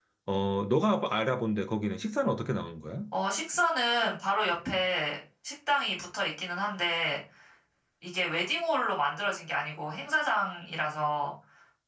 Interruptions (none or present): none